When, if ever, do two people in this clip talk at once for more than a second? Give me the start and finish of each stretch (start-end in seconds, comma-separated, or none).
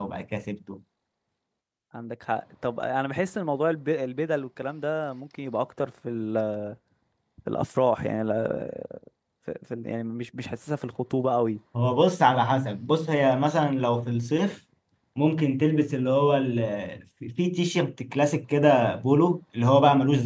none